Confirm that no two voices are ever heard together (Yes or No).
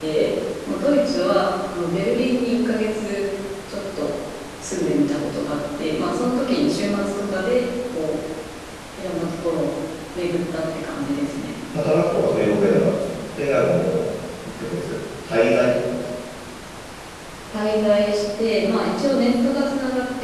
Yes